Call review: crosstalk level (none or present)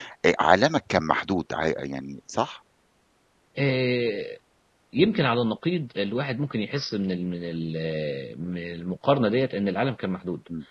none